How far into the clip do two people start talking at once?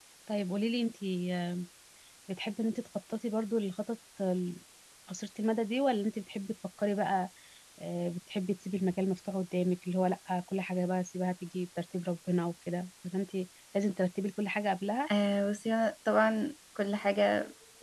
none

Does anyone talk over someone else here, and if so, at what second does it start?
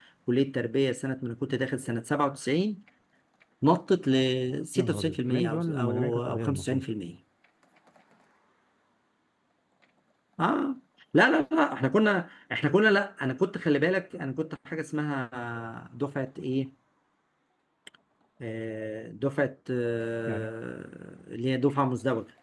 5 s

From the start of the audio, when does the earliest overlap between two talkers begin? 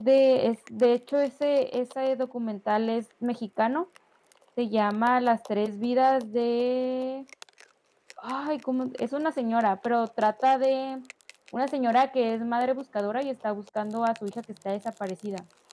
none

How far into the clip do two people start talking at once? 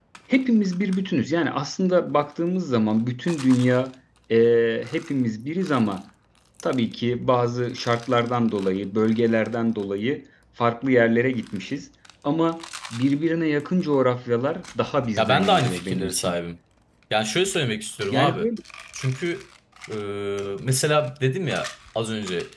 15 s

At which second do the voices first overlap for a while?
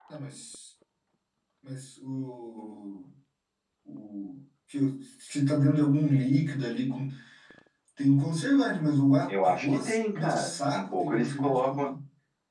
9 s

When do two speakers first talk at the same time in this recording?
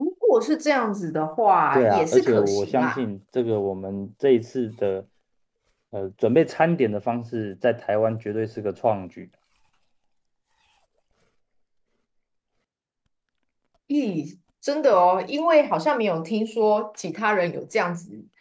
2 s

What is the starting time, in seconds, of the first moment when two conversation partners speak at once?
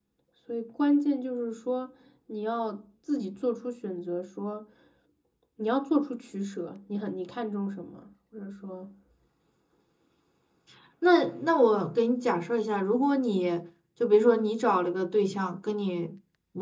none

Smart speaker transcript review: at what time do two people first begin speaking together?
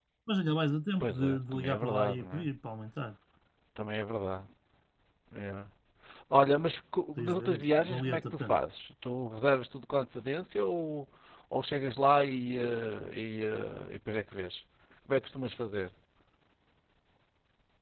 1 s

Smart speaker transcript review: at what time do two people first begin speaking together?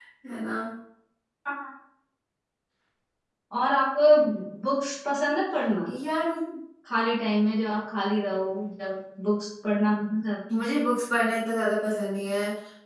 none

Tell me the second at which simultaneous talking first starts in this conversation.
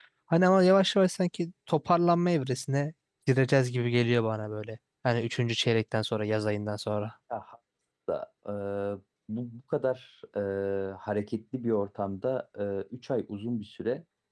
none

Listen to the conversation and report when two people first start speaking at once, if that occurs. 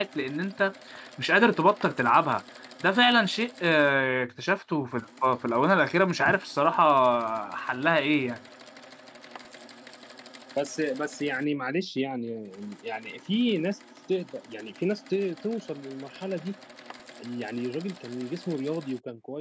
none

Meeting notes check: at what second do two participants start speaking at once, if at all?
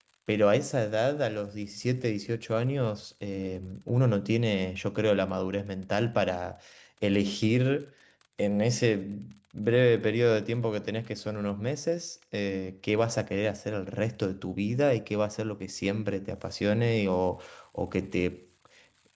none

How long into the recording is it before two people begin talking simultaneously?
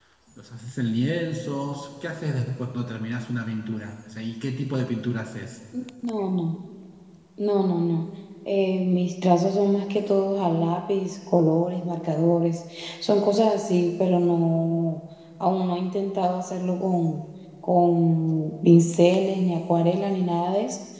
none

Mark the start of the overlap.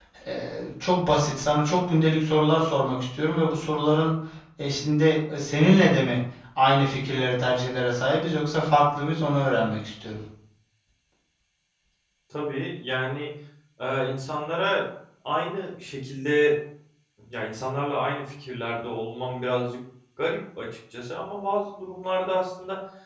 none

